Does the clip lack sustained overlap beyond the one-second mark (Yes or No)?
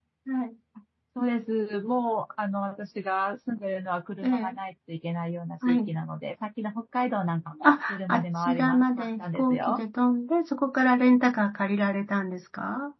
No